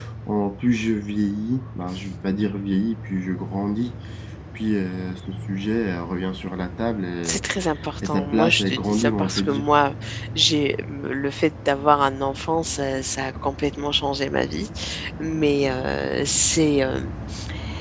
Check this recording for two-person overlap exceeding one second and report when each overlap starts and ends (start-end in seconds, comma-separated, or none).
8.0-9.7